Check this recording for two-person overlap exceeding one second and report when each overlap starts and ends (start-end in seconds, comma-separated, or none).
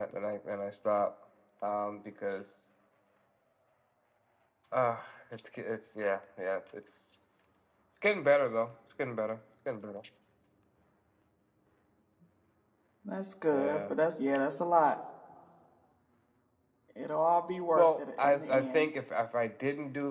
17.8-18.9